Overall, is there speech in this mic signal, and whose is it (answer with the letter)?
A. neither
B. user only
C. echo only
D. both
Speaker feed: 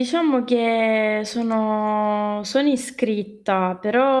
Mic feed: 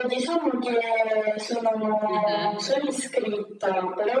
D